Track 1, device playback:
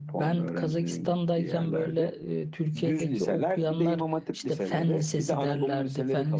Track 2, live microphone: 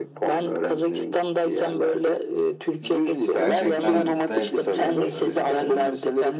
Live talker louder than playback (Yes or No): No